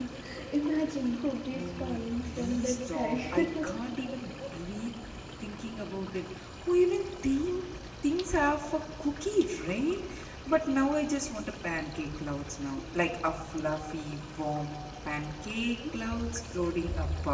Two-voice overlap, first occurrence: 2 s

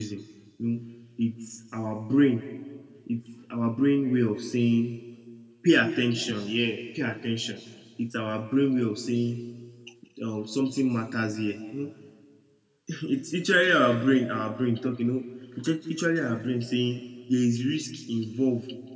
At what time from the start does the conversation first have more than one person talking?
none

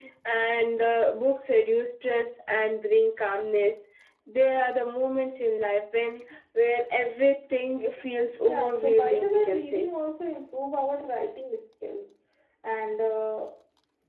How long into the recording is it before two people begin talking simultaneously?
8 s

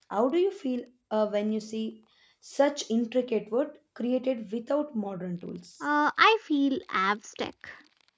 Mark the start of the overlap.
none

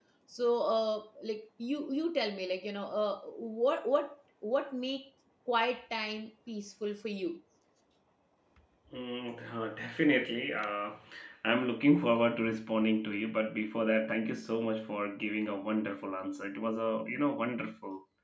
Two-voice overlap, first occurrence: none

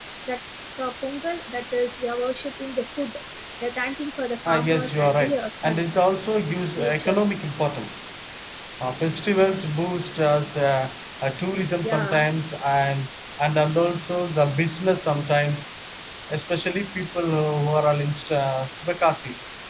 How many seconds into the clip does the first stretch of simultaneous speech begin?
4 s

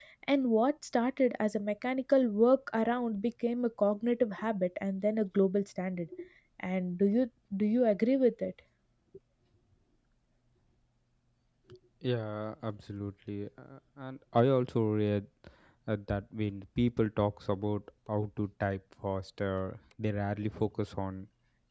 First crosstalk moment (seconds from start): none

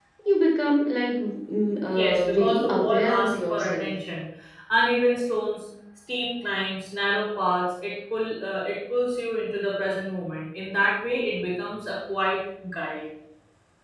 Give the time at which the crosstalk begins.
2 s

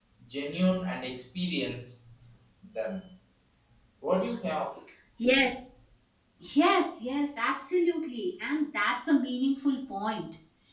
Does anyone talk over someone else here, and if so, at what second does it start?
none

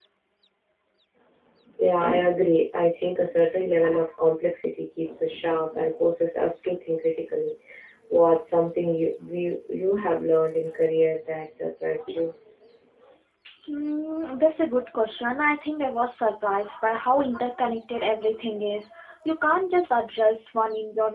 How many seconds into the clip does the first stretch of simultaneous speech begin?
none

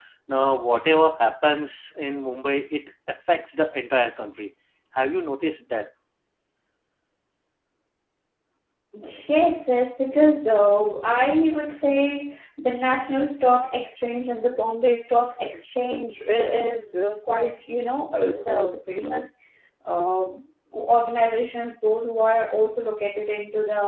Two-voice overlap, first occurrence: none

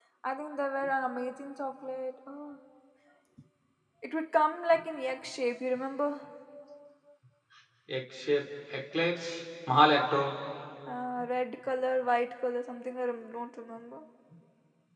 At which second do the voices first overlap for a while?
none

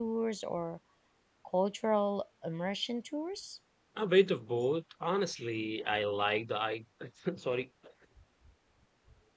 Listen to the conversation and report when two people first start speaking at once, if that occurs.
none

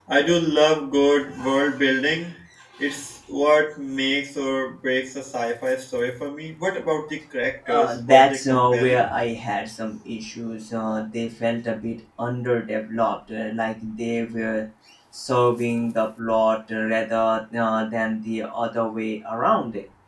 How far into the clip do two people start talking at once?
8 s

